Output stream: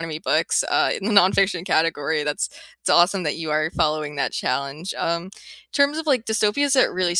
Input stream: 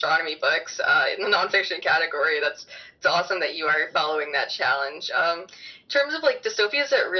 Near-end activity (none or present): none